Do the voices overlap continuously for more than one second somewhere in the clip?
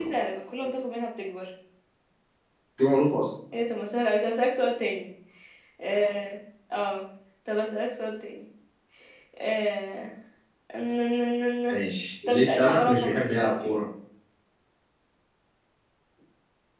Yes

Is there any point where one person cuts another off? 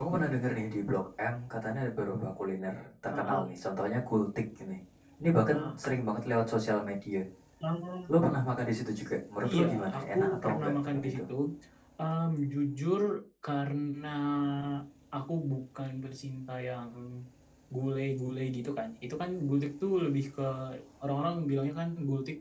Yes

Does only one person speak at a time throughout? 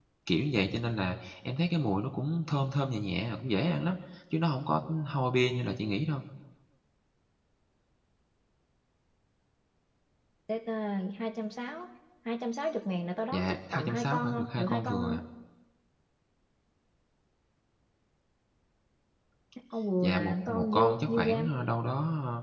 No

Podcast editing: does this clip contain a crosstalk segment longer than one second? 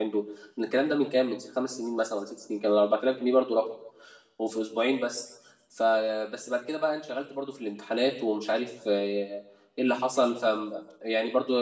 No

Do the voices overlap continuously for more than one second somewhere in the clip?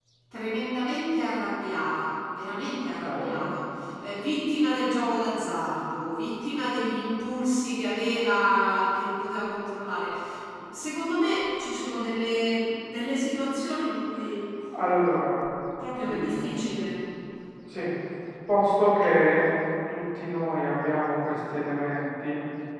No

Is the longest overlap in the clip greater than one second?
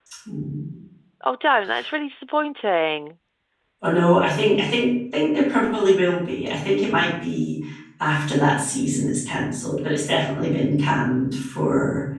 No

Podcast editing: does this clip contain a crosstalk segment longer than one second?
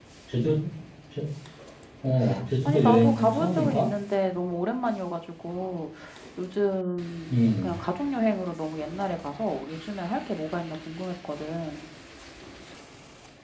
Yes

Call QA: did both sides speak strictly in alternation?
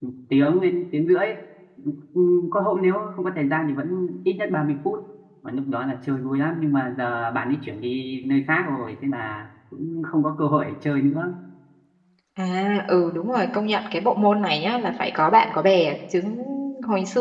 Yes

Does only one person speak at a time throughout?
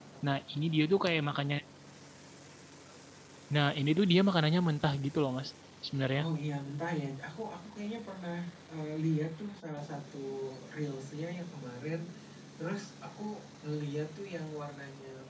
Yes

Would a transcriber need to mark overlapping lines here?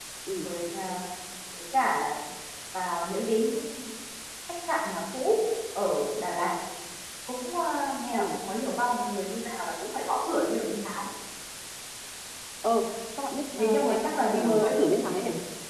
Yes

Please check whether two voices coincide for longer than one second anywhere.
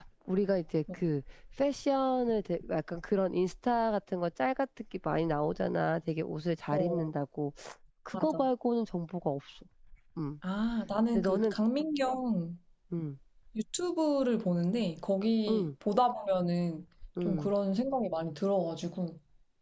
No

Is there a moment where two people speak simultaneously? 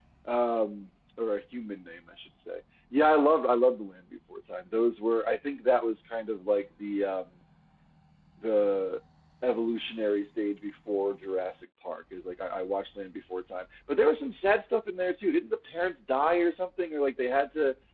No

